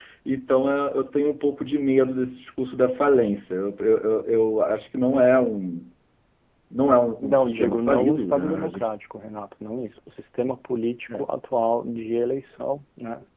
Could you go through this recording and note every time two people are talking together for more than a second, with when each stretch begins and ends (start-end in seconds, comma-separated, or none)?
7.2-8.9